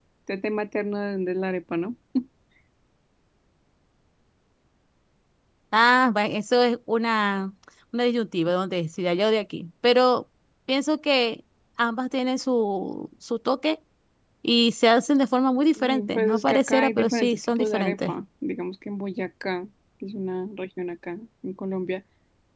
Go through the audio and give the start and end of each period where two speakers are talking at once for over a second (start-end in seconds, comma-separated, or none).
15.6-18.1